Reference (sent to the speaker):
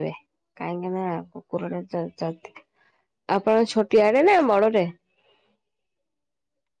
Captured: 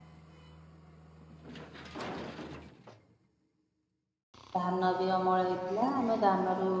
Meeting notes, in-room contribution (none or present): present